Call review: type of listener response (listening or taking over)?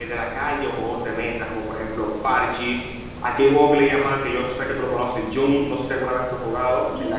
taking over